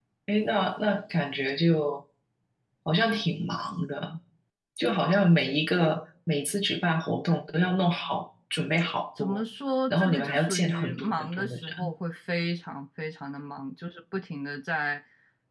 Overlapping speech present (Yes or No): Yes